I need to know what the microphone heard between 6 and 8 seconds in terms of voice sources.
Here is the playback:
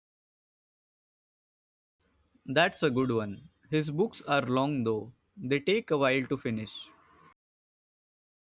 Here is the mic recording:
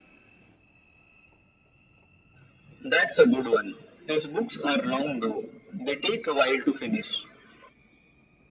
echo only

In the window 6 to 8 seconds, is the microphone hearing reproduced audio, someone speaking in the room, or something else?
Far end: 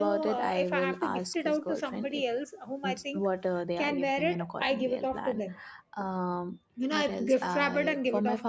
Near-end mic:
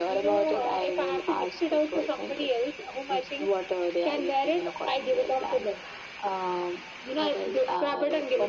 echo only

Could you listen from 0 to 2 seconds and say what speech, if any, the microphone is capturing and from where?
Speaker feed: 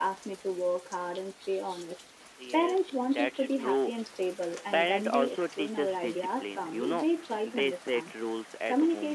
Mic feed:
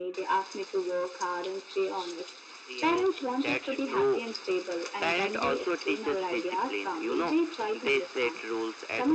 echo only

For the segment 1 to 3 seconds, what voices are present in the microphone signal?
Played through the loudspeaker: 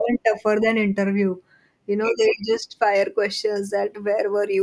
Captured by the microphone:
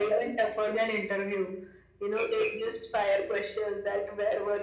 echo only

